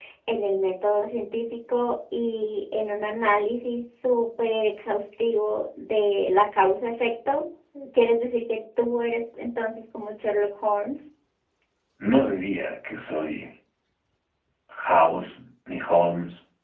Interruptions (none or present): none